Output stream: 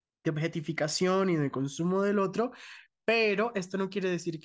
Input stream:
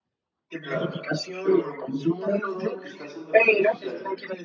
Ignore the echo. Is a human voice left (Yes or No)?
Yes